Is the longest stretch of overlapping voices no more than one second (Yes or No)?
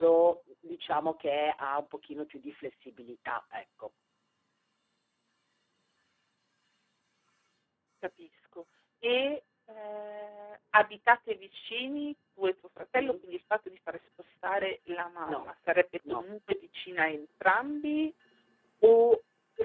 Yes